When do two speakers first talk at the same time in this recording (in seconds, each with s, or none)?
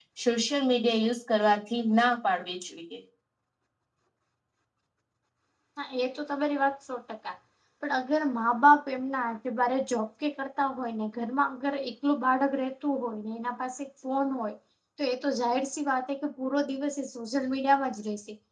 none